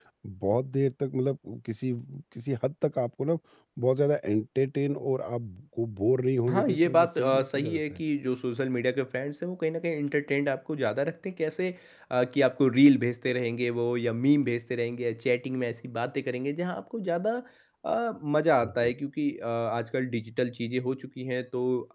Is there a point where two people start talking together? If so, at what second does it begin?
6.5 s

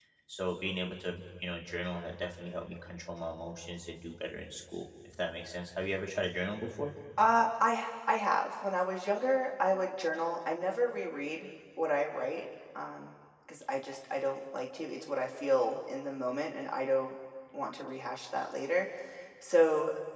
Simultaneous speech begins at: none

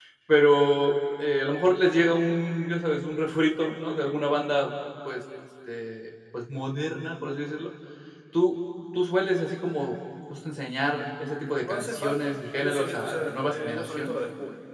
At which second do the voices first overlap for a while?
11.6 s

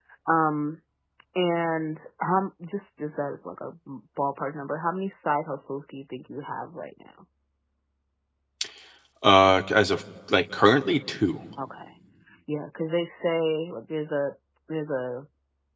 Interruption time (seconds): none

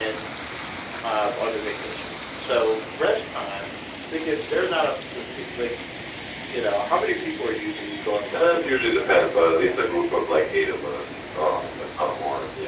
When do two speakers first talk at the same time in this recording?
8.1 s

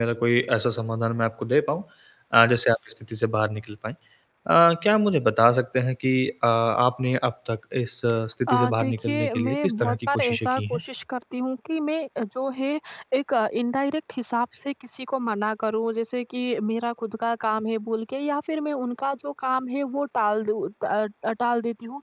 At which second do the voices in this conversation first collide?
8.5 s

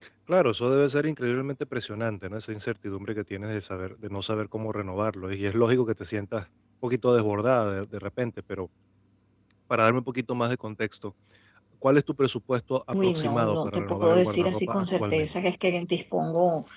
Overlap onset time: 12.9 s

